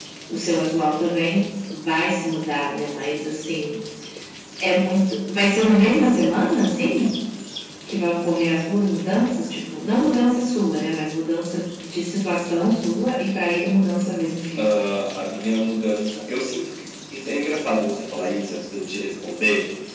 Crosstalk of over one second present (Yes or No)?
No